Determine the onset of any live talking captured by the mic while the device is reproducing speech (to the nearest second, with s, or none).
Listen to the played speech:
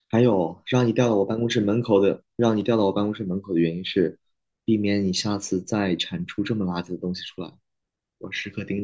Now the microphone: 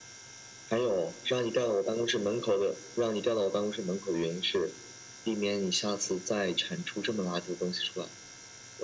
none